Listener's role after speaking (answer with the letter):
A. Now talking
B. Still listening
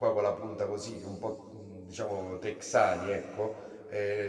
B